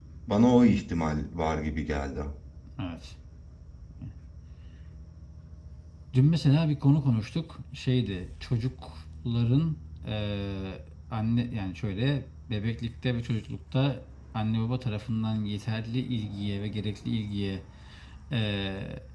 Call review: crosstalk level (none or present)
none